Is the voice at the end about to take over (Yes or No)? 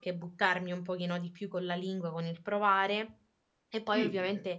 No